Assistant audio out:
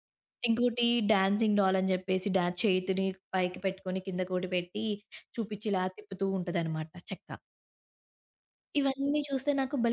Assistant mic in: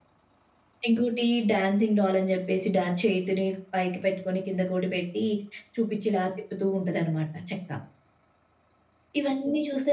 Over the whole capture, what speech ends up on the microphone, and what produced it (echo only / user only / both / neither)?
echo only